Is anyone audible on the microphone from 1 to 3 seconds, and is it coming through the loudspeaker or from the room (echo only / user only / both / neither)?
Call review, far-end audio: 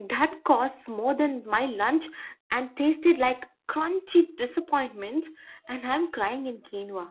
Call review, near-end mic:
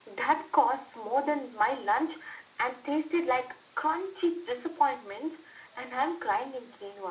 echo only